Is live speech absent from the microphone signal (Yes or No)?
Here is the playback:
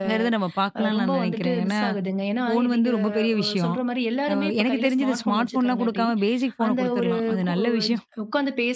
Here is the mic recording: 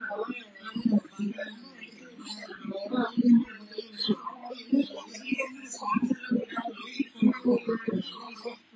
Yes